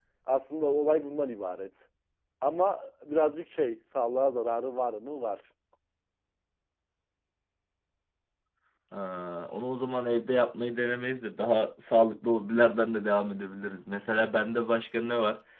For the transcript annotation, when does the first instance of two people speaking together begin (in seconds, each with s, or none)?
none